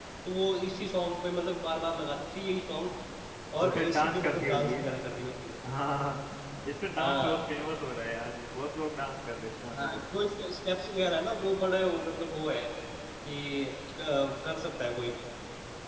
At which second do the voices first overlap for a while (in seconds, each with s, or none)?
3.6 s